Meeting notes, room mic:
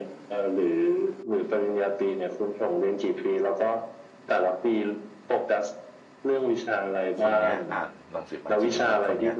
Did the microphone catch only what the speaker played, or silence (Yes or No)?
No